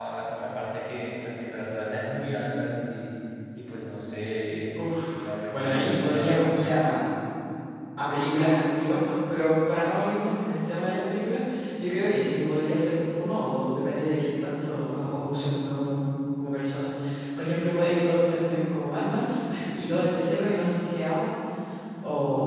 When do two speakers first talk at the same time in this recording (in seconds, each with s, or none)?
4.8 s